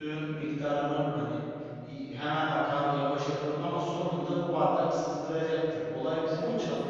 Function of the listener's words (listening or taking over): listening